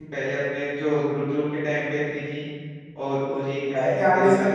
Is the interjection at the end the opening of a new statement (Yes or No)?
Yes